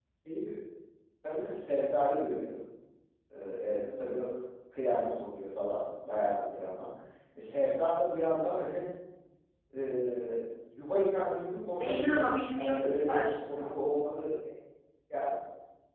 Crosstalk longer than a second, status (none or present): present